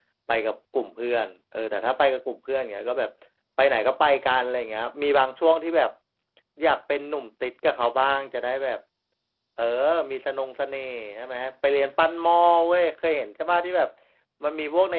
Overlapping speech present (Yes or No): No